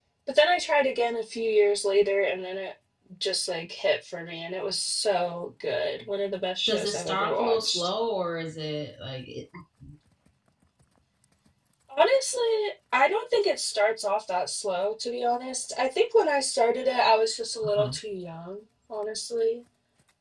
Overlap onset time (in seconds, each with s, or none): 6.7 s